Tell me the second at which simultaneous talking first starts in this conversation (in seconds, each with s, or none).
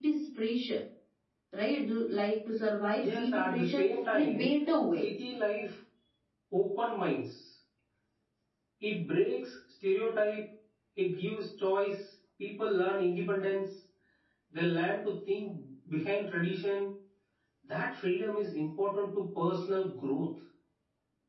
3.0 s